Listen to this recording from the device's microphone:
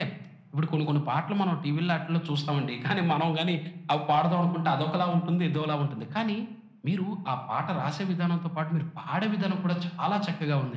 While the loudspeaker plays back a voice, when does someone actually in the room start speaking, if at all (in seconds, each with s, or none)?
none